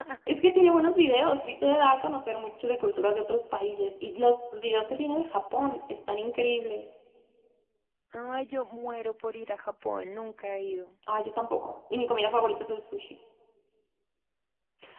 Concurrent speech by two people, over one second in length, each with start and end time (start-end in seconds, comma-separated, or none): none